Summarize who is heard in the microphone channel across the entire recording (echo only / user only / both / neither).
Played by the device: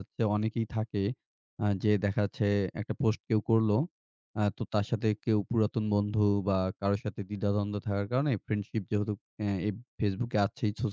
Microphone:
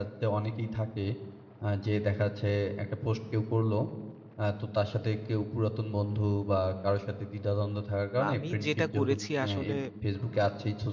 both